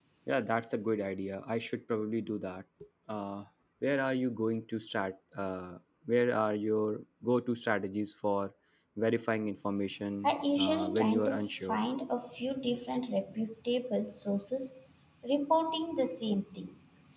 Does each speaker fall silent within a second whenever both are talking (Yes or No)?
No